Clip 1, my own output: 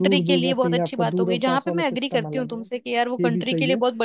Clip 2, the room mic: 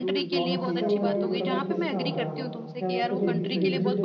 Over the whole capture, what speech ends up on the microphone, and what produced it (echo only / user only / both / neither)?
both